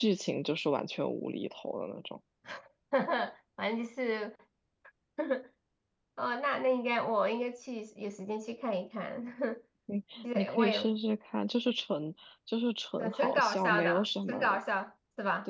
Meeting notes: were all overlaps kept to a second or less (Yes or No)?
No